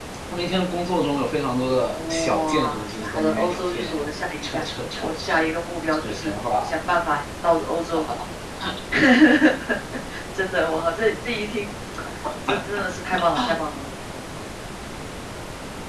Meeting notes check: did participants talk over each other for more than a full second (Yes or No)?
Yes